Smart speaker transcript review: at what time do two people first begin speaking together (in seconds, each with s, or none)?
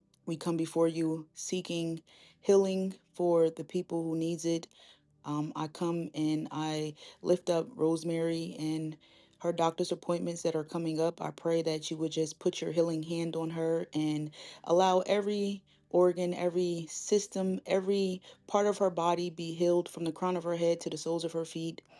none